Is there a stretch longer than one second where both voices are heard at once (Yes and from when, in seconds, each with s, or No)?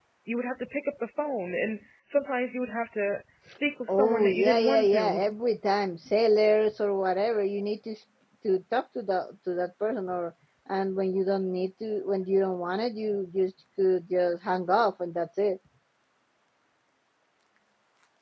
Yes, from 3.9 s